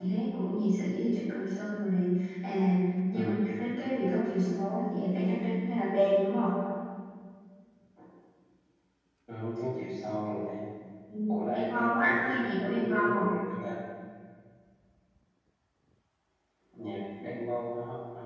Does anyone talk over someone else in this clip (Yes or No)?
Yes